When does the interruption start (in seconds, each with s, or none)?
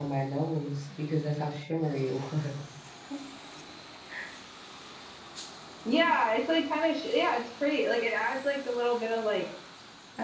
none